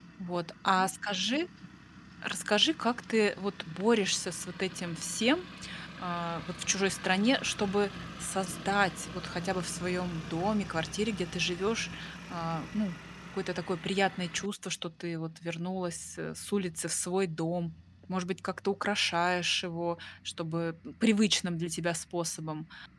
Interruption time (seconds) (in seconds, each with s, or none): none